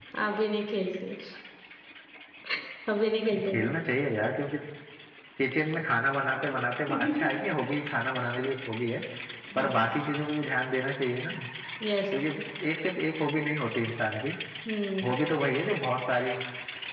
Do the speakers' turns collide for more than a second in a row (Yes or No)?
No